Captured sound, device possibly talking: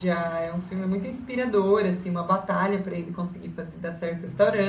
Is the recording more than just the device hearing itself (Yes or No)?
Yes